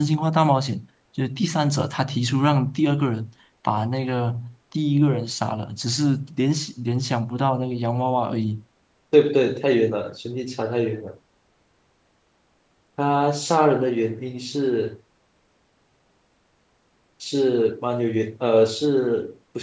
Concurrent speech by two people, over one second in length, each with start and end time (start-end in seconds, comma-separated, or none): none